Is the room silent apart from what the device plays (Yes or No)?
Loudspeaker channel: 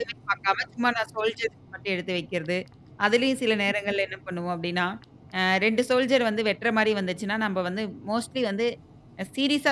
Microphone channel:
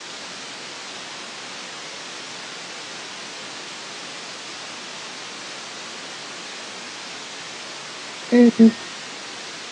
No